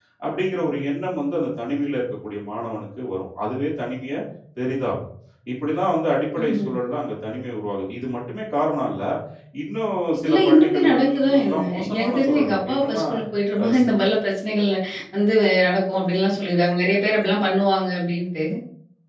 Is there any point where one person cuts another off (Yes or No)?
Yes